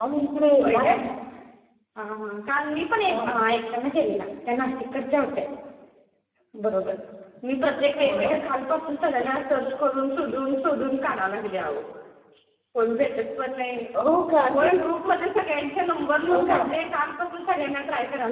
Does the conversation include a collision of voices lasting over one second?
No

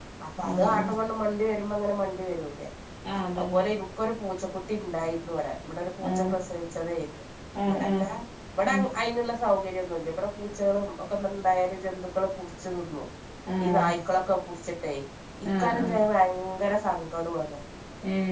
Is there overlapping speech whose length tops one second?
No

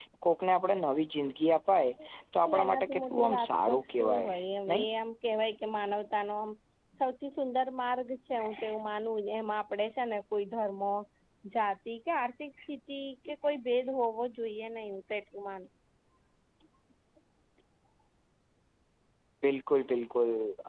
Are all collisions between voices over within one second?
No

